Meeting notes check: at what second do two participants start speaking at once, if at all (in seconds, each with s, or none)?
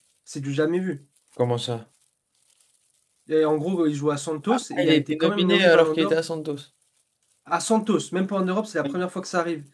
4.5 s